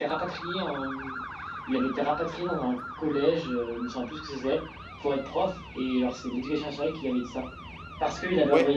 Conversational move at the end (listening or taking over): listening